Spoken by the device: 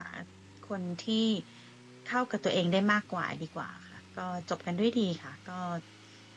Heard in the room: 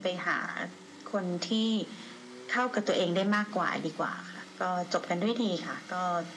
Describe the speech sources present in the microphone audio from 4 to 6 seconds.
echo only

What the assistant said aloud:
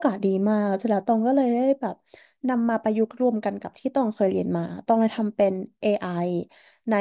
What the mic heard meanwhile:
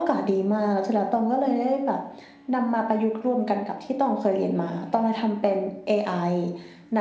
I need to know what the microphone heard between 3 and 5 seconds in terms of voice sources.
echo only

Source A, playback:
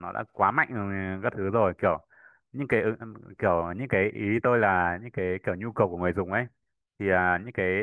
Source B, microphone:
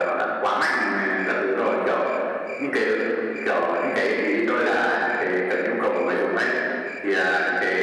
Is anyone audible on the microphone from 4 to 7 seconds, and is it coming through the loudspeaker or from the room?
echo only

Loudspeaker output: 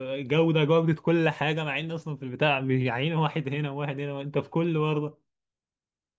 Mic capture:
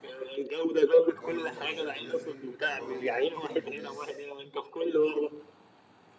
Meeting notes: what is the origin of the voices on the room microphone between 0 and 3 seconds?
both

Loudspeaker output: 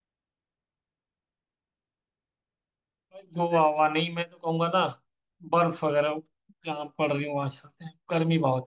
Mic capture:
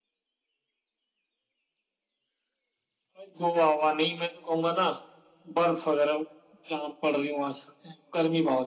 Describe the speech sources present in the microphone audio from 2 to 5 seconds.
echo only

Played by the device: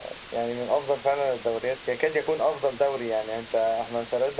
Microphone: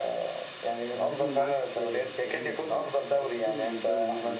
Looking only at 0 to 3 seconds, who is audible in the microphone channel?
both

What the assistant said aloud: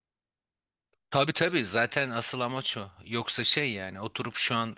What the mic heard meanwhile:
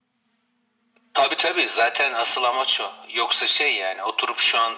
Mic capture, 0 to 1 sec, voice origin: neither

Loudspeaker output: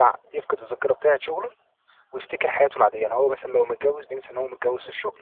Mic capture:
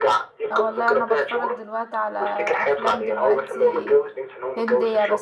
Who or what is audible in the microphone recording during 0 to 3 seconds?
both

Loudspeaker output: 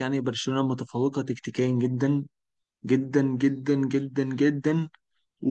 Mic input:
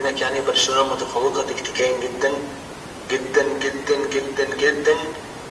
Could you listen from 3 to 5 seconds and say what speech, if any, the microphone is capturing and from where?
echo only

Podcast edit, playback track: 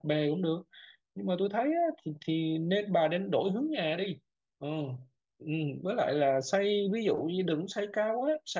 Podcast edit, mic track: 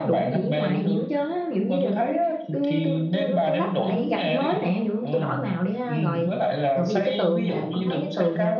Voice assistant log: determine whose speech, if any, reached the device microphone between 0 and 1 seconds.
both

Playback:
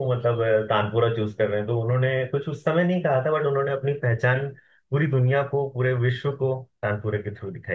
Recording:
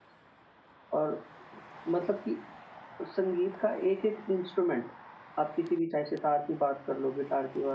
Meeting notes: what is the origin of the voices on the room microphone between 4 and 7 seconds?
user only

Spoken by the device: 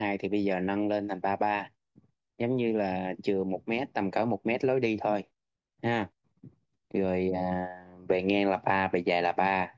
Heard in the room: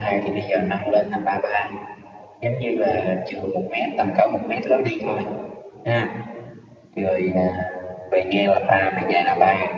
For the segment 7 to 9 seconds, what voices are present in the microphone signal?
echo only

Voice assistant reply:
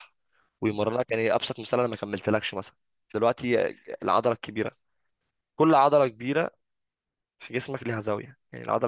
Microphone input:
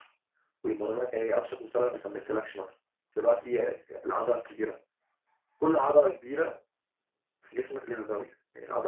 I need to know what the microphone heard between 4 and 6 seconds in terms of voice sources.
echo only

